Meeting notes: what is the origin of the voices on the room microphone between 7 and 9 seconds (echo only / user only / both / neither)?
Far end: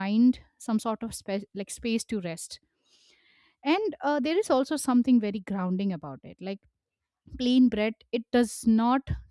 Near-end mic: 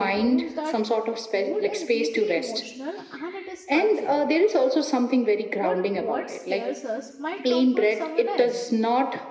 both